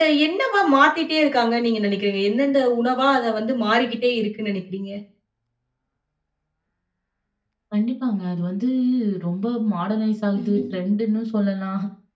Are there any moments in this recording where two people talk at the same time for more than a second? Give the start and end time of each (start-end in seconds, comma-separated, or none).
none